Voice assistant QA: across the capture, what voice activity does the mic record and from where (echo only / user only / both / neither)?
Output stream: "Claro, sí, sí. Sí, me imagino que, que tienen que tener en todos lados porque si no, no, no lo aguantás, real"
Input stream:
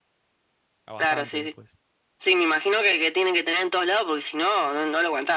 both